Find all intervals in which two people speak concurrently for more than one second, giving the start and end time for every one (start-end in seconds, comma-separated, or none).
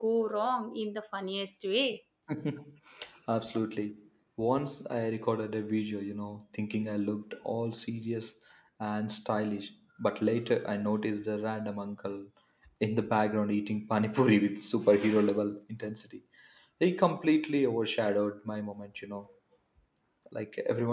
none